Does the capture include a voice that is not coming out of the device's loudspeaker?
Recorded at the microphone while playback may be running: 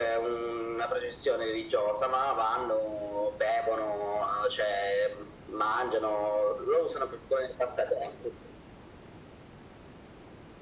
No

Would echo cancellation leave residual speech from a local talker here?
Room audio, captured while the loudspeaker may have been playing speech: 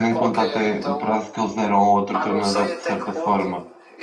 Yes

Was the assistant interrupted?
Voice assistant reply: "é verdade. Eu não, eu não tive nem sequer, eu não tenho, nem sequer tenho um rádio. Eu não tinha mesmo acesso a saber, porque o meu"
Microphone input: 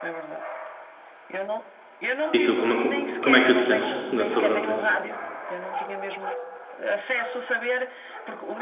Yes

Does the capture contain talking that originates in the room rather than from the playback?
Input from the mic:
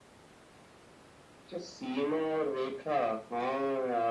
No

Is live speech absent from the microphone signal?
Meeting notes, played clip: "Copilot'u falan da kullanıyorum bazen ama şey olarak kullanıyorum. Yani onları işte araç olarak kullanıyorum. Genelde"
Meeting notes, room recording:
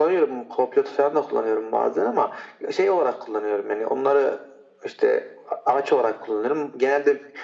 Yes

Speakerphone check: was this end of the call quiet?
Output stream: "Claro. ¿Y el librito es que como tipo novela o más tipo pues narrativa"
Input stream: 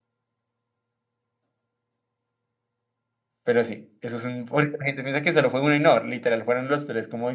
No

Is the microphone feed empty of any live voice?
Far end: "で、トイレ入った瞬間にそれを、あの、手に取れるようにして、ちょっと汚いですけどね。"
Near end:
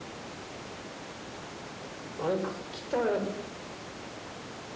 No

